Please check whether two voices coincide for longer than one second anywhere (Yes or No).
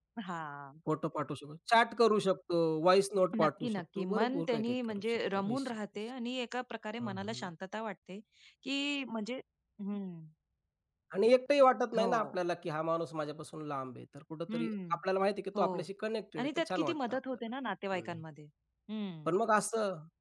Yes